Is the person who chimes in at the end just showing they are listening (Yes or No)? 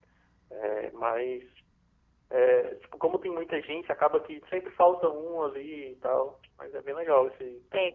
No